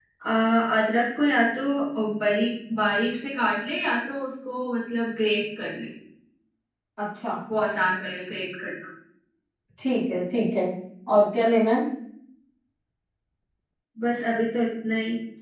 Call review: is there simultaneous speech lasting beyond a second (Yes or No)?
No